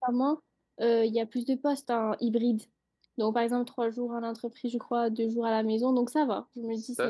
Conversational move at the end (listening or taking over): taking over